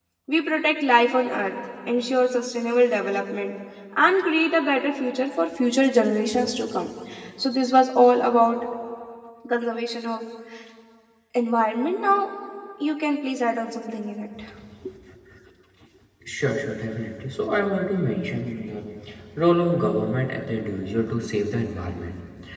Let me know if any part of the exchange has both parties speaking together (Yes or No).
No